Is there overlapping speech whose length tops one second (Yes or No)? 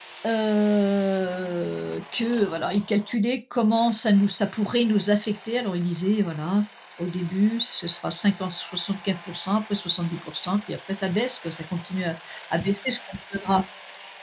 No